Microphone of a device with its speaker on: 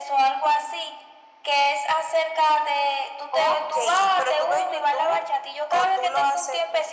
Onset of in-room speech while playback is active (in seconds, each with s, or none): none